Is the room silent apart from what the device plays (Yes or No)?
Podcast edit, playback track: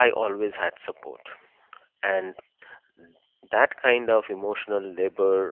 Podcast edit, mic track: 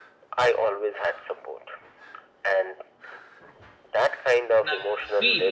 No